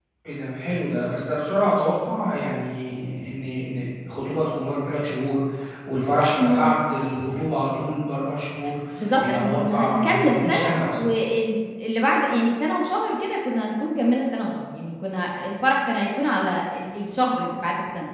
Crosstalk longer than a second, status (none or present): present